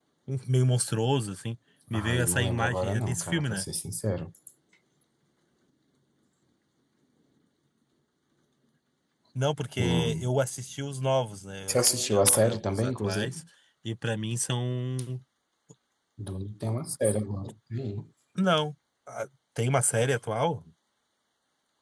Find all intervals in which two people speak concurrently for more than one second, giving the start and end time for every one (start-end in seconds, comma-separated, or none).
1.9-3.6, 11.7-13.4